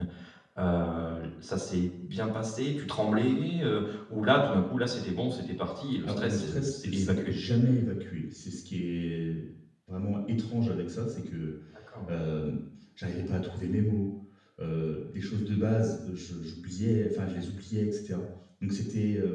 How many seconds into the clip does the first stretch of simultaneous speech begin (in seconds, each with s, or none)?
6.0 s